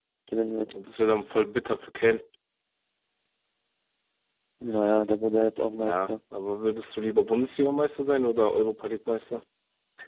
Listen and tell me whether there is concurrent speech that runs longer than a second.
No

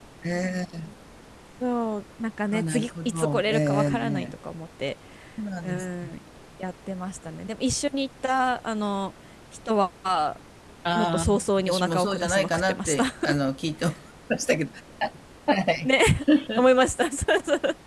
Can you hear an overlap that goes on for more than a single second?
Yes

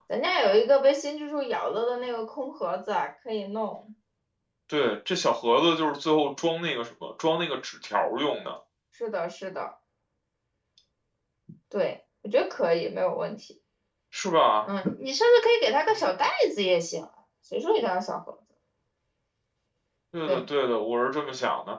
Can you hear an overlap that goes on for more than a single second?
No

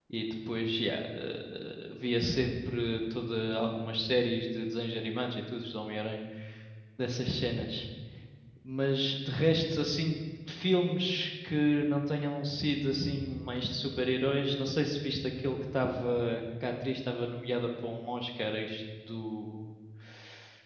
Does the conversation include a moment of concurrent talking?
No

